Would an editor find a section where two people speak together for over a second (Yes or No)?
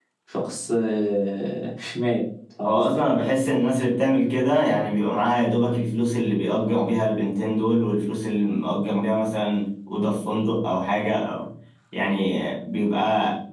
No